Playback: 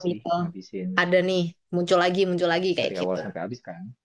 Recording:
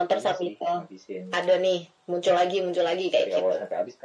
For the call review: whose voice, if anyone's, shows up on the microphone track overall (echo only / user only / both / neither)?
echo only